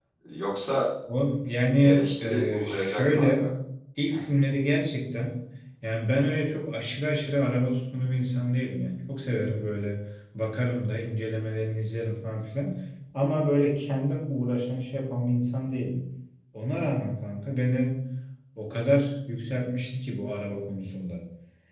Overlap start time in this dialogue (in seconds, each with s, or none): 1.8 s